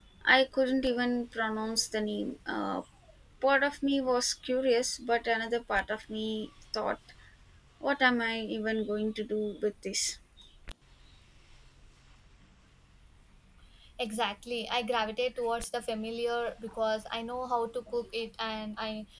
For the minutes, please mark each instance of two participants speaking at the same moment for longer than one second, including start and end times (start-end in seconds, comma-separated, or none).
none